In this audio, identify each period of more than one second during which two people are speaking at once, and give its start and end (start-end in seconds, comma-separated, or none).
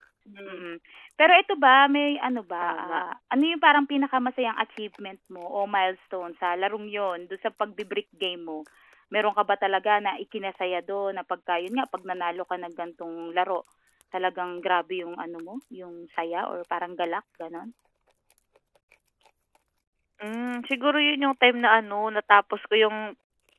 none